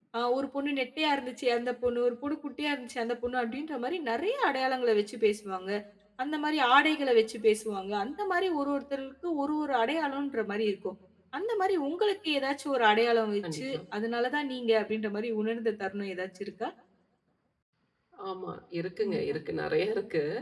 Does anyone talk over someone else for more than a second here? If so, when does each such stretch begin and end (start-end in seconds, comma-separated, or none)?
none